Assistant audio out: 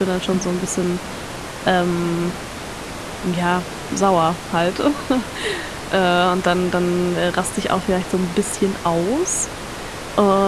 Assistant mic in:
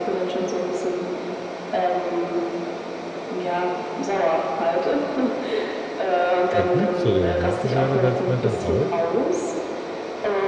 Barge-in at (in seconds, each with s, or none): 6.5 s